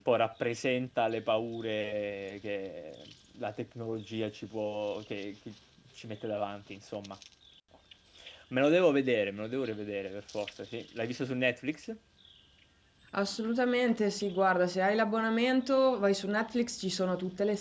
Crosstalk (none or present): none